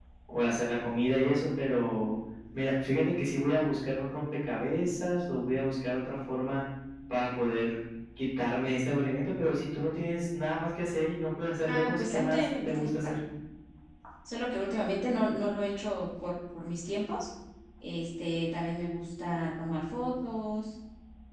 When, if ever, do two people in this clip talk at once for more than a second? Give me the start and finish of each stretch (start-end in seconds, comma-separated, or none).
11.7-13.1